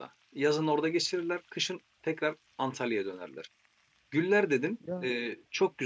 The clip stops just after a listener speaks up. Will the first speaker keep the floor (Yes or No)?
Yes